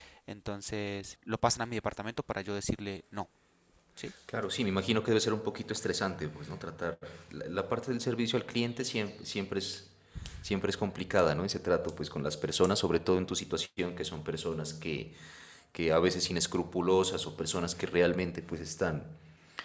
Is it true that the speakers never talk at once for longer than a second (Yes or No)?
Yes